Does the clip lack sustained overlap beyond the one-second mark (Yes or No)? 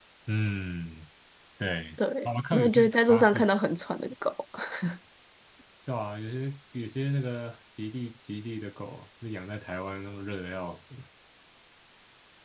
No